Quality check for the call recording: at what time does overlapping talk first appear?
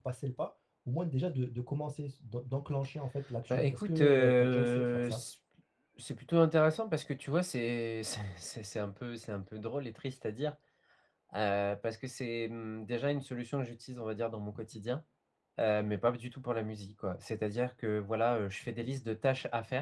3 s

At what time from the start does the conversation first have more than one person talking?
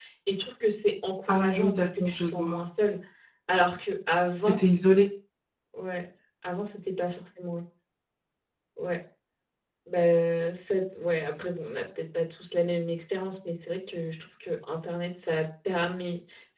1 s

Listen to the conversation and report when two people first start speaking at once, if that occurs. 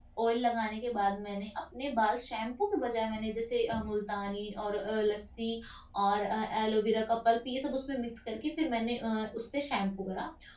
none

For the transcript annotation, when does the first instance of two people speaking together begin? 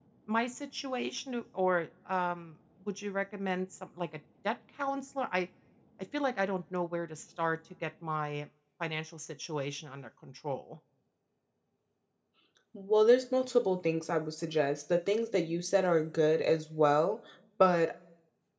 none

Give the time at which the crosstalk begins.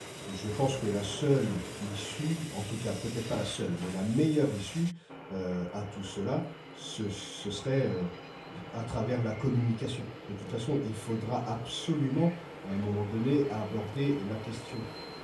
none

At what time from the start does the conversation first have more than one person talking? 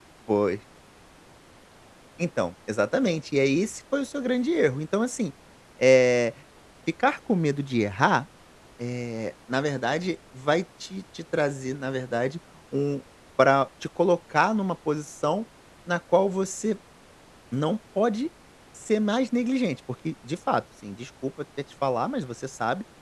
none

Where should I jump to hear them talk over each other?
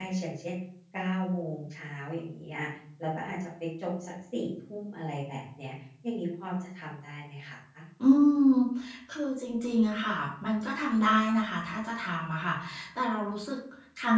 none

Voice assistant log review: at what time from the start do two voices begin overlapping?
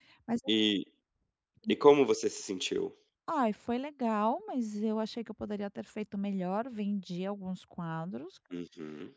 none

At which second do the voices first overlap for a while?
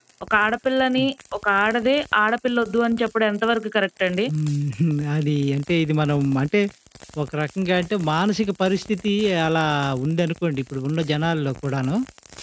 none

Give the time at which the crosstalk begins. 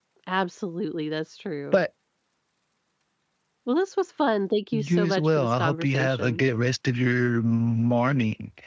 5 s

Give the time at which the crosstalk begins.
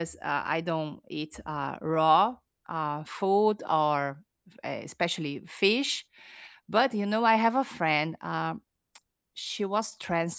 none

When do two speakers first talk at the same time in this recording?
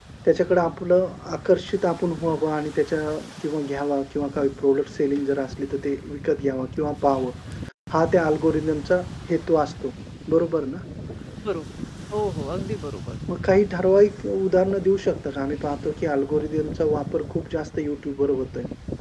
none

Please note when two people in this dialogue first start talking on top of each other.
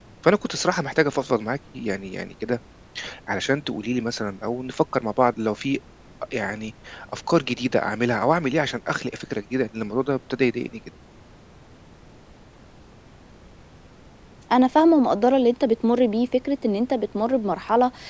none

